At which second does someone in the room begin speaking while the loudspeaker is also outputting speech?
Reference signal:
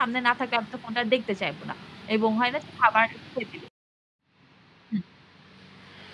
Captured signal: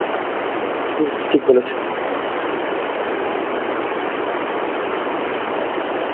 1.0 s

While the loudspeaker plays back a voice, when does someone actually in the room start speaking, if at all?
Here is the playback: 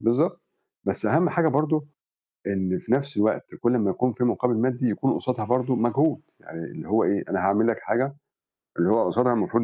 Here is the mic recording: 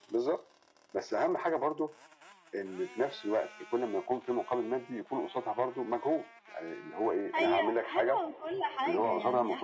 7.3 s

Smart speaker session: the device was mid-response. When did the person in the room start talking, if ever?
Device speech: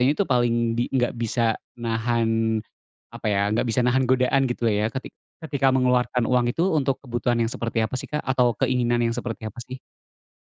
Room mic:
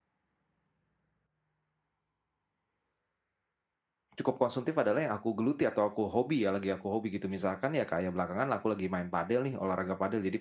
4.2 s

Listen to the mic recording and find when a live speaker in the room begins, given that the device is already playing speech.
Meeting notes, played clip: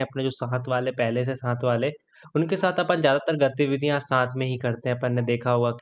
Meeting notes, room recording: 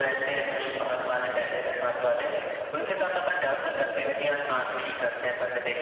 none

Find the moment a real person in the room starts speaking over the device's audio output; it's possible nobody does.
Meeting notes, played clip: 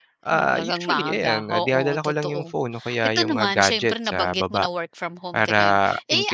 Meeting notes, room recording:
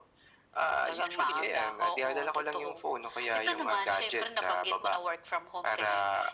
none

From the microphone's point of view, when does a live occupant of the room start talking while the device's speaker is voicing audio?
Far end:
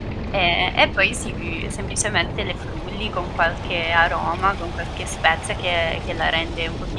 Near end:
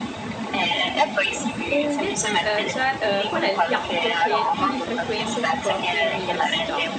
1.7 s

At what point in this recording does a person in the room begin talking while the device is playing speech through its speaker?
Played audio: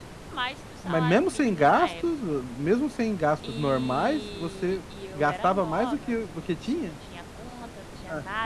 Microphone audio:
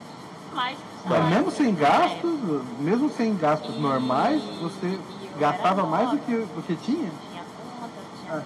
1.1 s

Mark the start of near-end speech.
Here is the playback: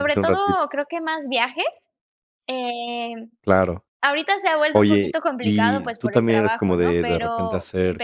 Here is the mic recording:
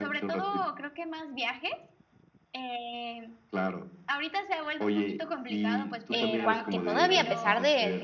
6.1 s

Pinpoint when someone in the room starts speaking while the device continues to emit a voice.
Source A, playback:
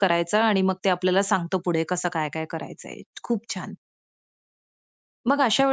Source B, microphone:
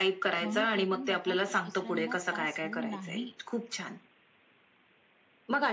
0.4 s

